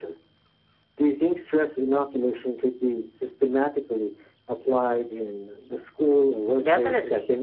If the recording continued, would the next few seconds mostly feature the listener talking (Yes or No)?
Yes